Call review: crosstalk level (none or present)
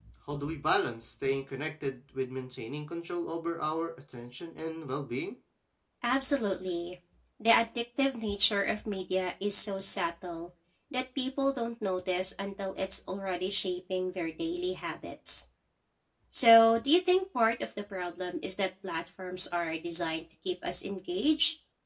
none